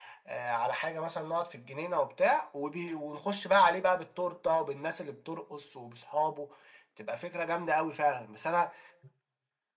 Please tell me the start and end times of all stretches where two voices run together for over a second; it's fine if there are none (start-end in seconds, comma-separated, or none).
none